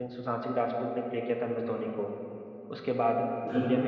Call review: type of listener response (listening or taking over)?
taking over